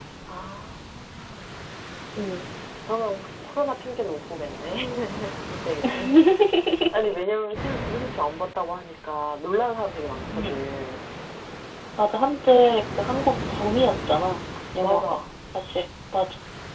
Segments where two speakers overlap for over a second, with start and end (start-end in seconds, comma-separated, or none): none